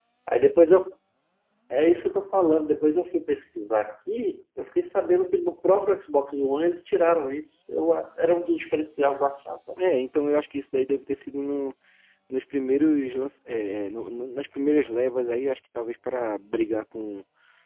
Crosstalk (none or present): none